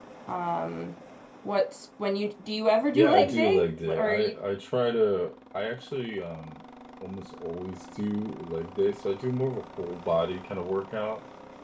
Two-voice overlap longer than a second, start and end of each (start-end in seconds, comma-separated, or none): 2.9-4.3